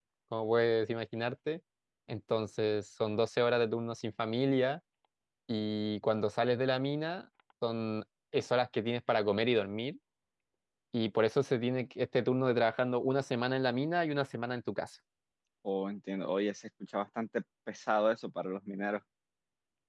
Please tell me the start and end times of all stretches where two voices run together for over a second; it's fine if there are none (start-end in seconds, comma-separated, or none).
none